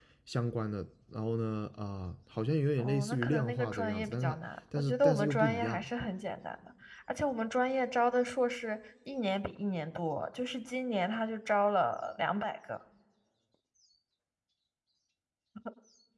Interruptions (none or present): present